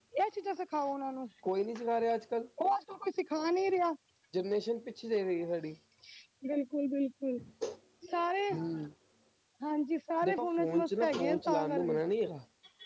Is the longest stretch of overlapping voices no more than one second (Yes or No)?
No